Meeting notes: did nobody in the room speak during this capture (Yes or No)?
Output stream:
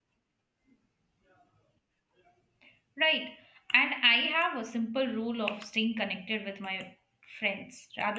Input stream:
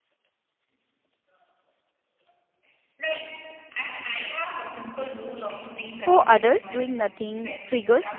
No